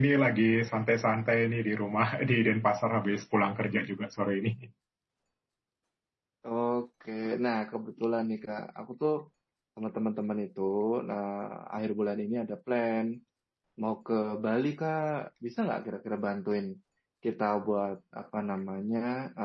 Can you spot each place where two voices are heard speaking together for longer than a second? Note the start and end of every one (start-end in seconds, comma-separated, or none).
none